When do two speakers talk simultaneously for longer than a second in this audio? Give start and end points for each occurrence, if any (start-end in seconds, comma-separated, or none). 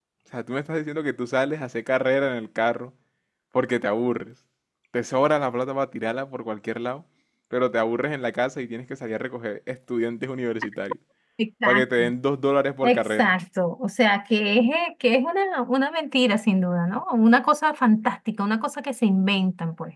none